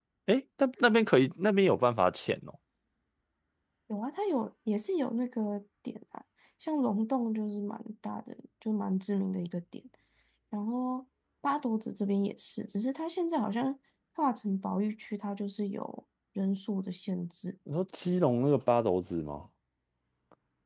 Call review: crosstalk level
none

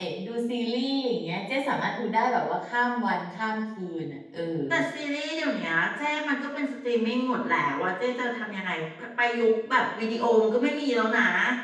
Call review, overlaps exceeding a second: none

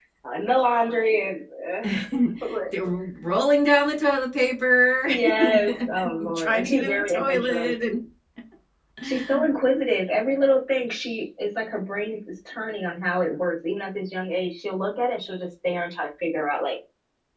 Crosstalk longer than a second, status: present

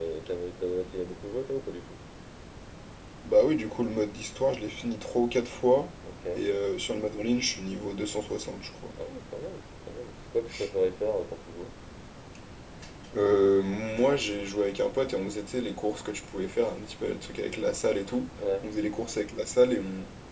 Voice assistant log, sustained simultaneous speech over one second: none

